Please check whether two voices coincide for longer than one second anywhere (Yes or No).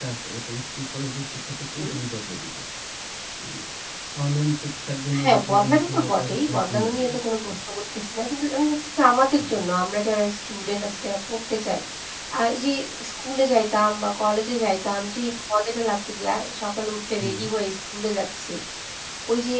Yes